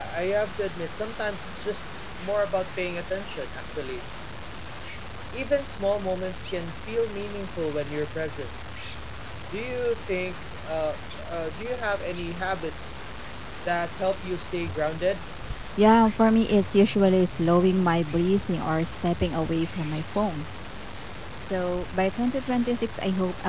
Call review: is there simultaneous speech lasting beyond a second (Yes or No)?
No